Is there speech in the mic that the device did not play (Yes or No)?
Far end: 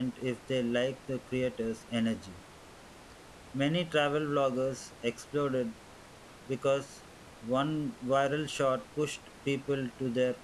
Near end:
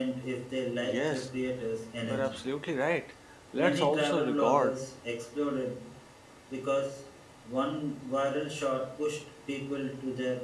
Yes